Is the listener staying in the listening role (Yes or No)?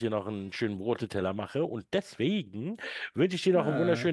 Yes